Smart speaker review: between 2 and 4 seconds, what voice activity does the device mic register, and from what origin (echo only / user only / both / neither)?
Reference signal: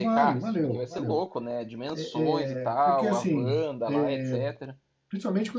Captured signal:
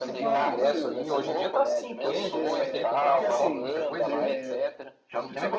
both